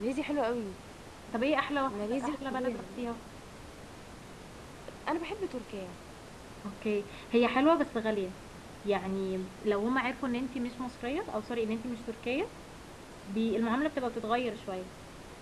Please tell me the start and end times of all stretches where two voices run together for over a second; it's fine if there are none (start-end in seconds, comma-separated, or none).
1.9-3.1